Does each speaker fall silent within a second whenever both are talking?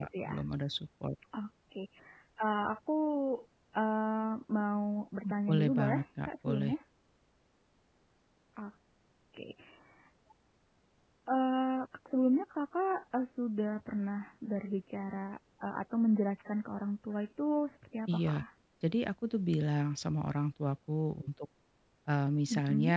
No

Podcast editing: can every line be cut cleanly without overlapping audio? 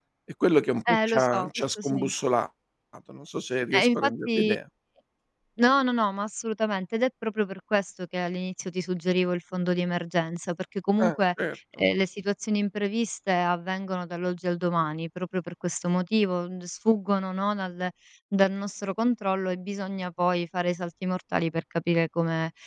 No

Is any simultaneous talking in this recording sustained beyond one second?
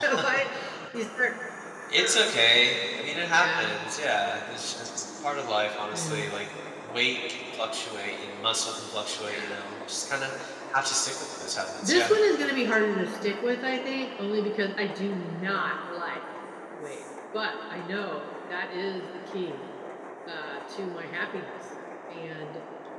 No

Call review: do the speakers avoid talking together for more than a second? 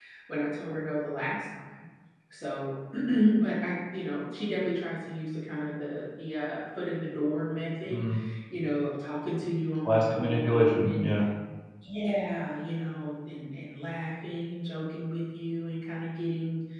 No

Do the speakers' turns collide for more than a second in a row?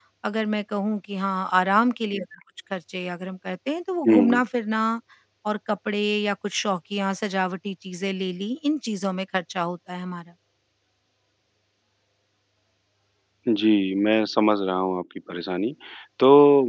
No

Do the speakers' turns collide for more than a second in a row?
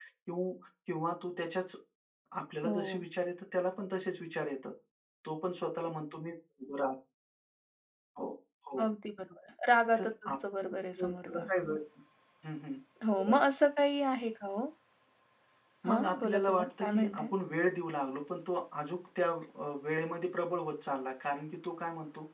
Yes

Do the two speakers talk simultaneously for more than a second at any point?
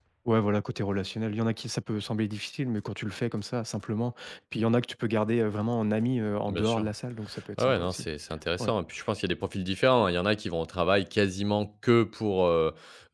No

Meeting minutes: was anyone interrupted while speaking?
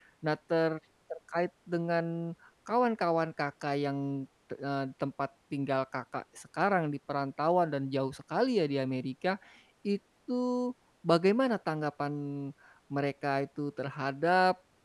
No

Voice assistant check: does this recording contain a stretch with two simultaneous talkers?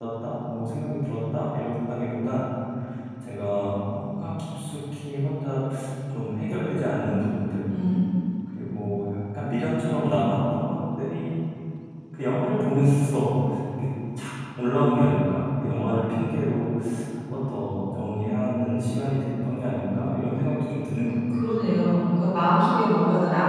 No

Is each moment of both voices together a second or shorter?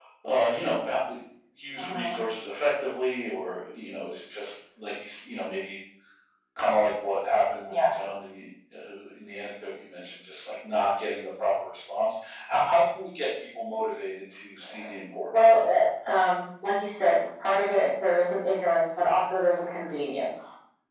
Yes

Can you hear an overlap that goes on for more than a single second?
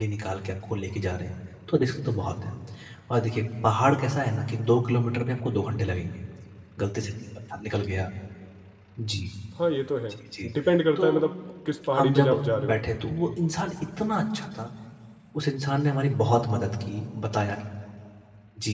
No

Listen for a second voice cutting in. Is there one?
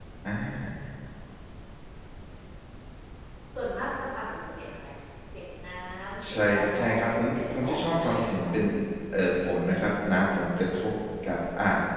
Yes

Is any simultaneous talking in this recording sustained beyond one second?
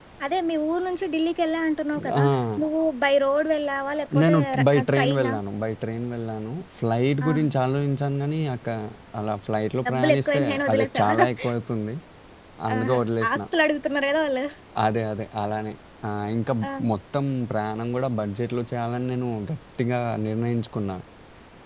Yes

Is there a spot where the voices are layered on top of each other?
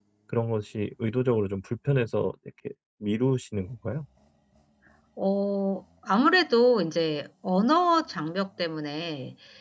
No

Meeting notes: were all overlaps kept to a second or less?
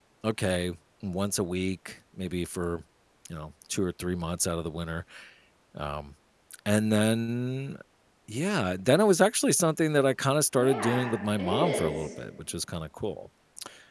No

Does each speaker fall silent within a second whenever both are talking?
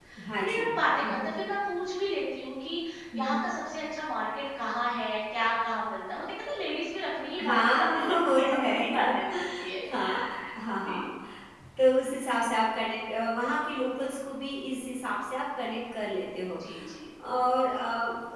No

